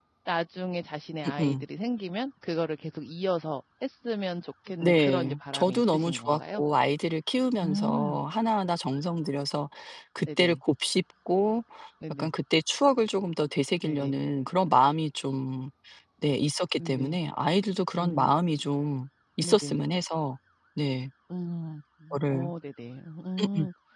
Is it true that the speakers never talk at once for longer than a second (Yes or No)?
No